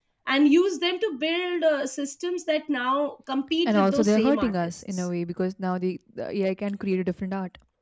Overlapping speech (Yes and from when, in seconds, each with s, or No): Yes, from 3.6 s